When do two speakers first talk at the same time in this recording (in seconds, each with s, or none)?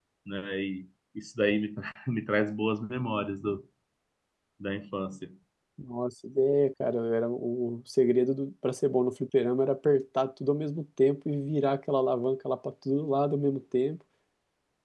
none